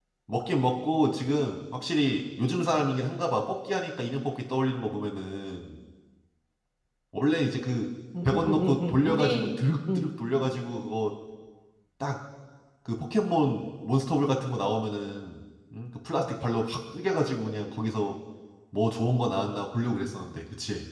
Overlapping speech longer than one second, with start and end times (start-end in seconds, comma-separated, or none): 8.2-9.5